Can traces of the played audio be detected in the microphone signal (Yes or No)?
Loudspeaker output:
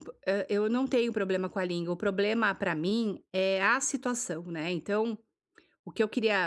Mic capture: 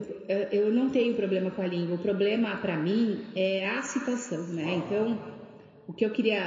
Yes